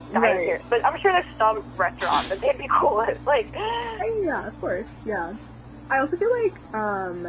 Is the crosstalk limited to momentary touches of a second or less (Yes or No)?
Yes